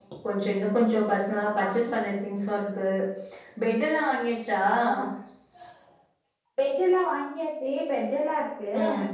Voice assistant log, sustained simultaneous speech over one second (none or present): none